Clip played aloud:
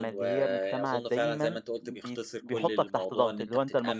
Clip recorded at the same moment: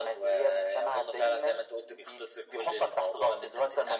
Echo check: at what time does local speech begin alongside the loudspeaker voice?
none

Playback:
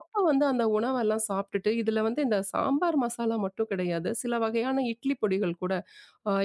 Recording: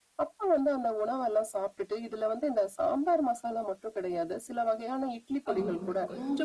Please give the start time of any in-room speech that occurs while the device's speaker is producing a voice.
6 s

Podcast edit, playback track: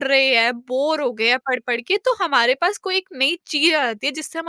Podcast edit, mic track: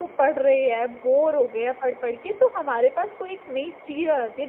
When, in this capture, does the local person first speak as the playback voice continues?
none

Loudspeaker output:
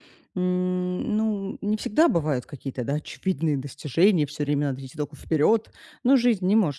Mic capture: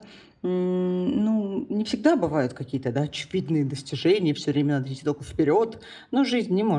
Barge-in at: none

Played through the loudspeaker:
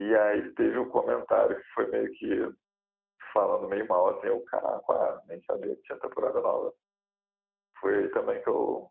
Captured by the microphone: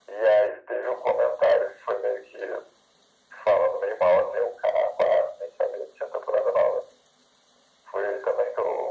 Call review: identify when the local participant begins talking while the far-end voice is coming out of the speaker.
none

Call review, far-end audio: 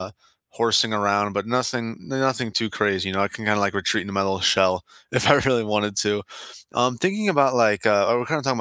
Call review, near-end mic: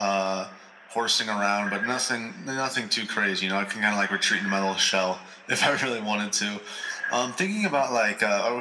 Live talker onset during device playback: none

